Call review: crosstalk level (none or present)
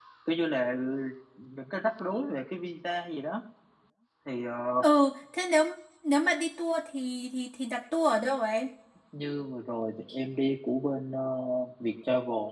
none